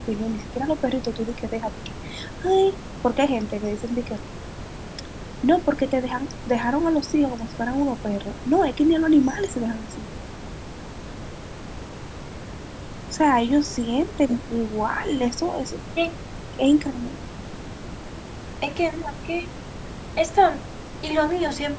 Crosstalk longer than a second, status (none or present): none